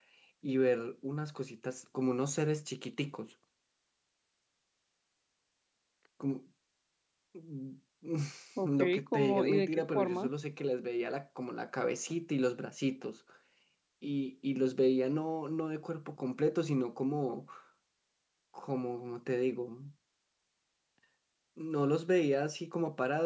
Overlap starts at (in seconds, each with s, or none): 8.7 s